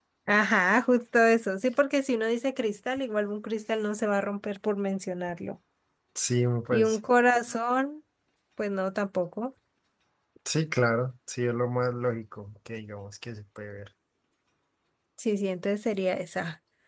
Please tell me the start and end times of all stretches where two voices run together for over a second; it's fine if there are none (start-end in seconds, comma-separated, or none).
none